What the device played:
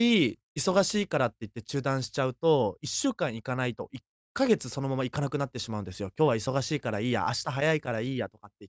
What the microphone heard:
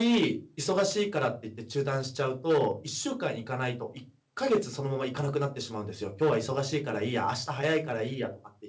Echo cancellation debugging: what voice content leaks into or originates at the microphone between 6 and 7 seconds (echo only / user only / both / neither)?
echo only